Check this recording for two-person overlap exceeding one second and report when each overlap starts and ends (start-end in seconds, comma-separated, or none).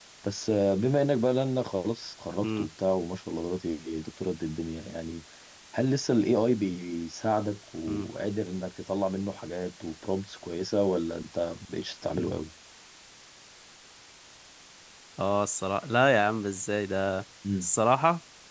none